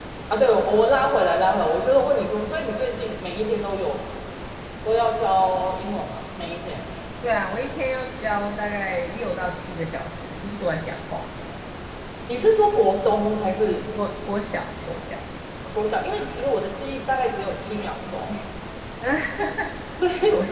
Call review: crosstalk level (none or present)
none